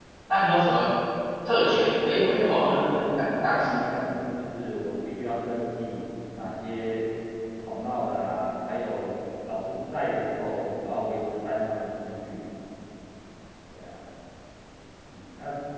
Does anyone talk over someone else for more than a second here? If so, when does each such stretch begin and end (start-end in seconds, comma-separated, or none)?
1.6-3.8